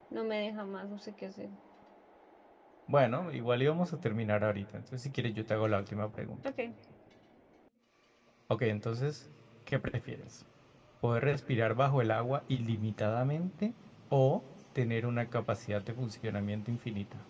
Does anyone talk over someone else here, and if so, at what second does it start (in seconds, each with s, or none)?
none